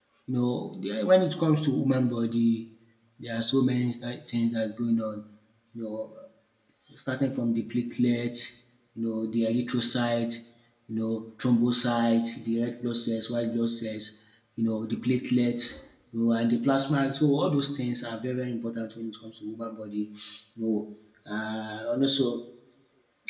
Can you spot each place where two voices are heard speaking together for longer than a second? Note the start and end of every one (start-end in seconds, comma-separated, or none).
none